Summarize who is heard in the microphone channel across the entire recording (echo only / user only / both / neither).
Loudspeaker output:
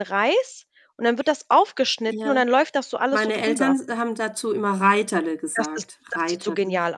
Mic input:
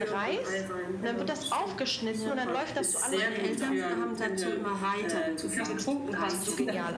both